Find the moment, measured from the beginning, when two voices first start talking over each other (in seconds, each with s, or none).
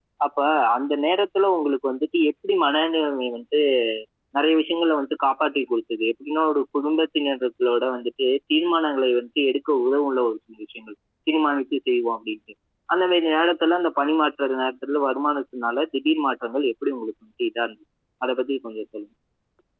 none